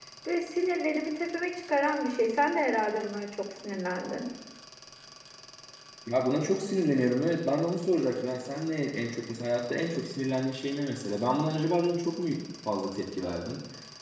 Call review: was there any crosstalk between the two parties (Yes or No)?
No